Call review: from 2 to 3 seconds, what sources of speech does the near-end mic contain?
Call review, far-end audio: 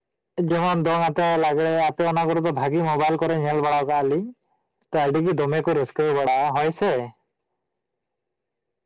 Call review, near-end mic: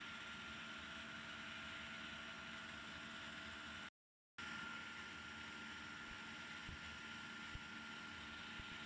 neither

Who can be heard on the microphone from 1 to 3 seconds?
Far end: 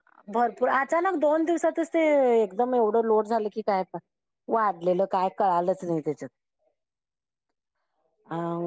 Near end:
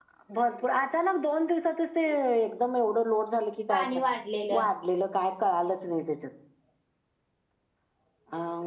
echo only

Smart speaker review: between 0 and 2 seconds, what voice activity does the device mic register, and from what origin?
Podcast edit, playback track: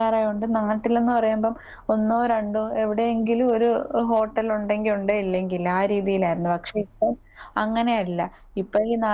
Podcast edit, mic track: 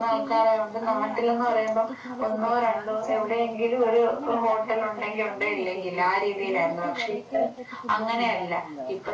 both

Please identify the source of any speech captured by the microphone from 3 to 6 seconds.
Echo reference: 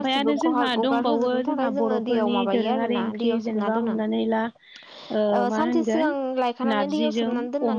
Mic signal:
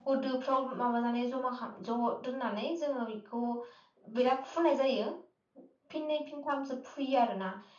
user only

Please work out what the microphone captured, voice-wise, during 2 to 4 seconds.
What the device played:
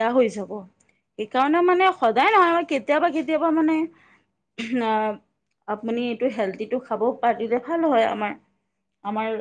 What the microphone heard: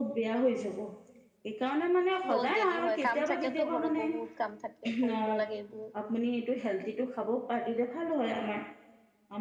both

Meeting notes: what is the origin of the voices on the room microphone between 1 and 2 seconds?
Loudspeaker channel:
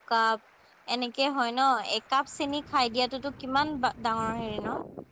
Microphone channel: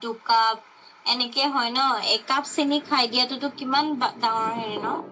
echo only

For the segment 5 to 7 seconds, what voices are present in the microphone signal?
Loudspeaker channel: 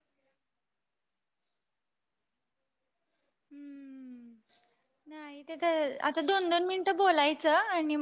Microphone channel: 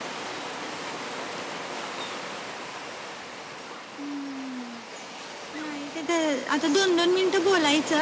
echo only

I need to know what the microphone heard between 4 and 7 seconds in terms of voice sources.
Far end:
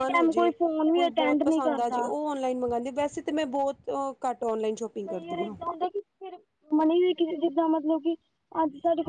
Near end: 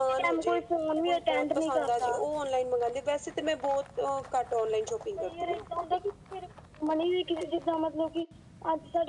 echo only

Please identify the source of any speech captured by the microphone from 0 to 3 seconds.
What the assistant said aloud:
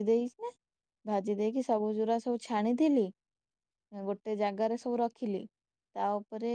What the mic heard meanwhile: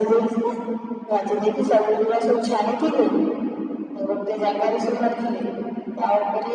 echo only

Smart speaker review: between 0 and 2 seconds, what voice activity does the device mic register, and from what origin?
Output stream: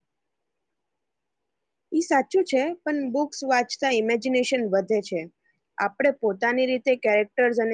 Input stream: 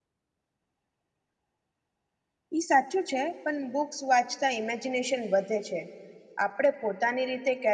neither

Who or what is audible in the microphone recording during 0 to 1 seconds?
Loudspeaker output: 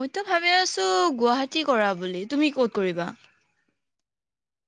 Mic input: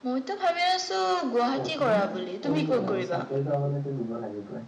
echo only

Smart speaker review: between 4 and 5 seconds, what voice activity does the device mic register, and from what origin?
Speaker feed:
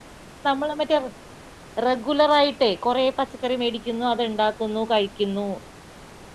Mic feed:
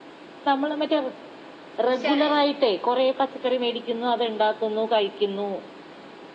echo only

